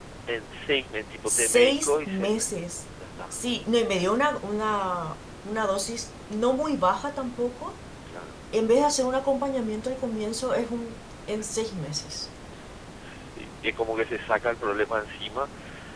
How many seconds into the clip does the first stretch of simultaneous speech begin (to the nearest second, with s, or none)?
1 s